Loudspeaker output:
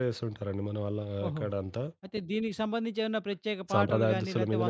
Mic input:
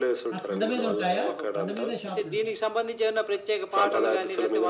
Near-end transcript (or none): ఆ కొండ మీద ఉంటాయా? కొండ మీదే షాపులుంటాయి.